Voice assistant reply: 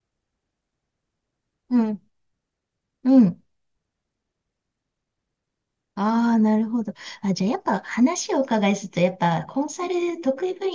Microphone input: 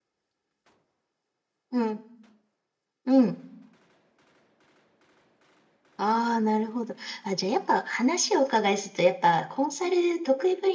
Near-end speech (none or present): none